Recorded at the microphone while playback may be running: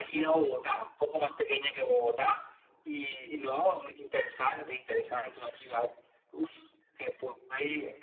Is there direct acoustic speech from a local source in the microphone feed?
No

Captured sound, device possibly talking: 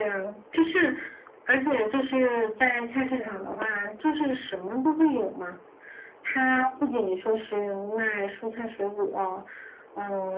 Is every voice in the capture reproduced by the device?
Yes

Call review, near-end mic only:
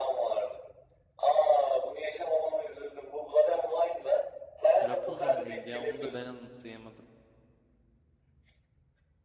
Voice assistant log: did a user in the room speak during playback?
Yes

